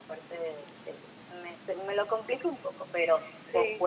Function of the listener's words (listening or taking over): listening